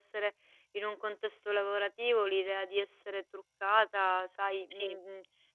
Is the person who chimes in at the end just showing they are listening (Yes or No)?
Yes